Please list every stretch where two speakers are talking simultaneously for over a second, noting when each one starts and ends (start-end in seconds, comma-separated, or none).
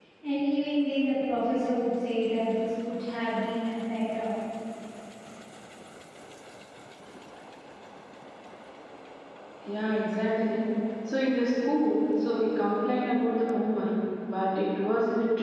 none